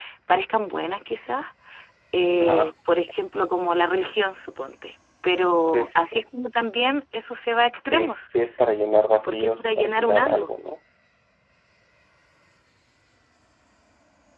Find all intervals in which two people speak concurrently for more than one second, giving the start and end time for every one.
9.2-10.5

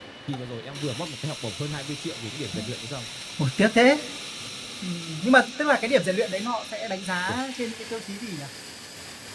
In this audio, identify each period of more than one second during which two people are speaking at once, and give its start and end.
none

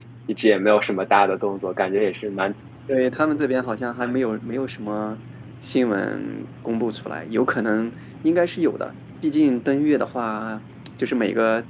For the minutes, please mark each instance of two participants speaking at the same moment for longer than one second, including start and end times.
none

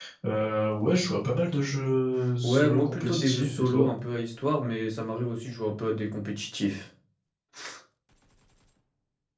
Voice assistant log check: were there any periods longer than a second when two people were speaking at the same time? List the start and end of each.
2.4-3.9

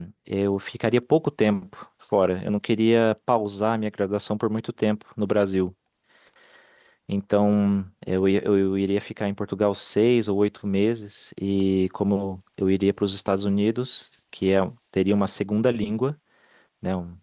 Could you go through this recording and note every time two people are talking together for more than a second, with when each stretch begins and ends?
none

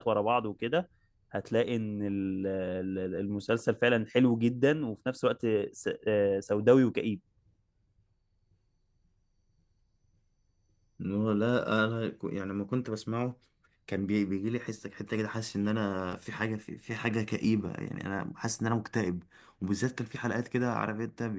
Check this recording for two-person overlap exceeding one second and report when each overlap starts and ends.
none

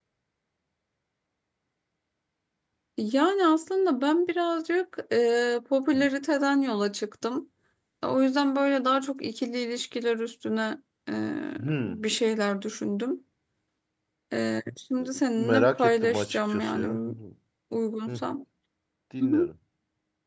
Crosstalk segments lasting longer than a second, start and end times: 15.4-17.1

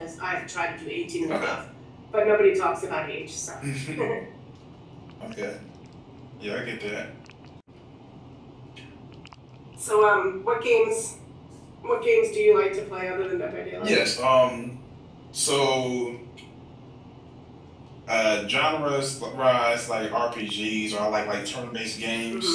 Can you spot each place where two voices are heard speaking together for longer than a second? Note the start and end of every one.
none

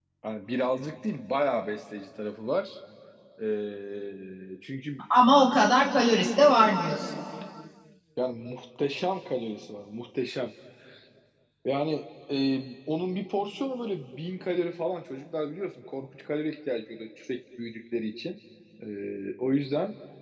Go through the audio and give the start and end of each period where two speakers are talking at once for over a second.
none

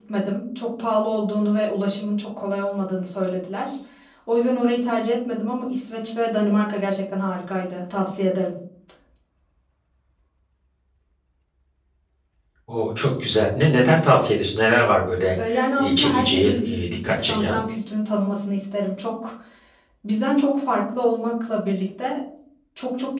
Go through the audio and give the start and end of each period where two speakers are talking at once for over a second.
15.8-17.6

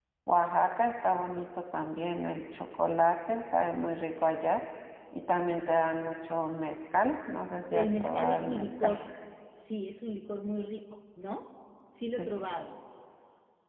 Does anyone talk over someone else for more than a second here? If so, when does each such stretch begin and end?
7.7-8.9

